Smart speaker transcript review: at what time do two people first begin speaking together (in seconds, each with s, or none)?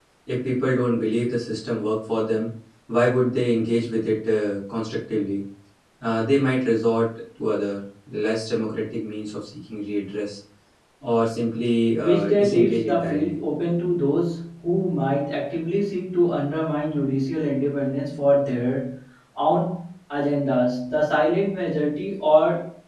12.0 s